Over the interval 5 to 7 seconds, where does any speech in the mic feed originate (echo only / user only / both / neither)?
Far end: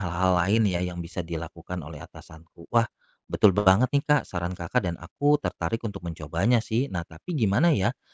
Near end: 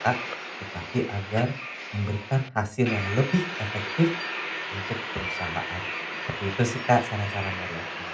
user only